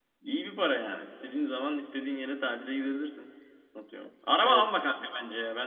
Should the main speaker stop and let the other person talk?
No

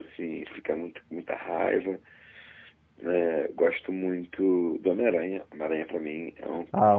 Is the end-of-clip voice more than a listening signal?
Yes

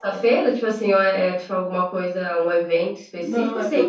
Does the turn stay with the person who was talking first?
No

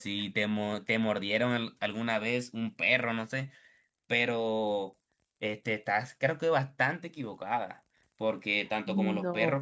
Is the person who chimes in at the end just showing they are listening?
Yes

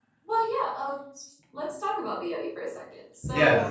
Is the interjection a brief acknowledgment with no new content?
No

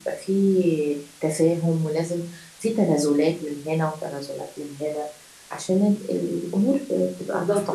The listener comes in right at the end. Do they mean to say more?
Yes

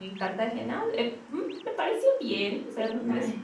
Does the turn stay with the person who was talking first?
No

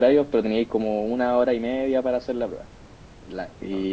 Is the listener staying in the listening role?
Yes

